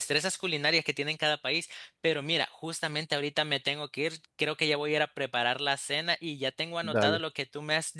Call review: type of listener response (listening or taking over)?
listening